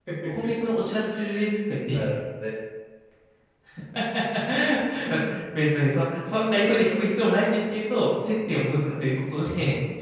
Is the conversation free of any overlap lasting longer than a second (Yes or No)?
No